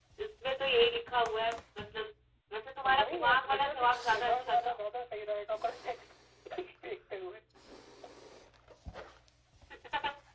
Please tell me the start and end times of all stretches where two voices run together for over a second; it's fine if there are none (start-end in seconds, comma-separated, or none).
2.8-4.8